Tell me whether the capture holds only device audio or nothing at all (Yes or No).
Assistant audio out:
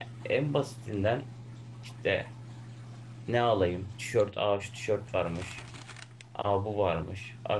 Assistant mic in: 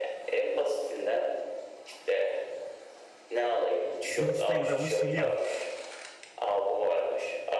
No